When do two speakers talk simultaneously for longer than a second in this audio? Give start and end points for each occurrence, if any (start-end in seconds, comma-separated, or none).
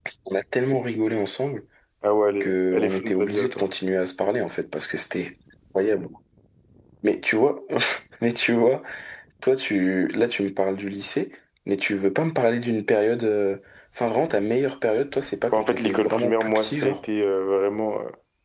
2.4-3.7, 15.5-17.0